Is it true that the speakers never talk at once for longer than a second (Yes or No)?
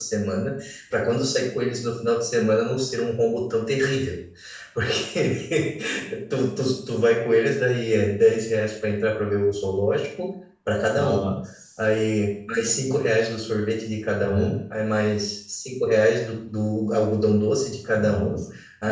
Yes